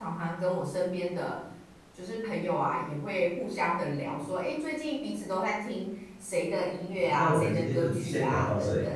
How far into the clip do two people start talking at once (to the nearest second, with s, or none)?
7 s